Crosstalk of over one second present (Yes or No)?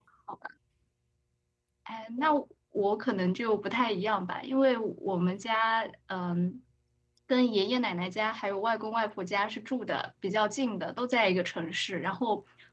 No